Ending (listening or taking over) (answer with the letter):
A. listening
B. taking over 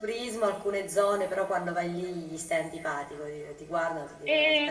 B